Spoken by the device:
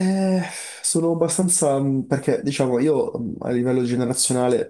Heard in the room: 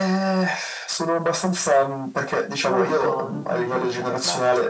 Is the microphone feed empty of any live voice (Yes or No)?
No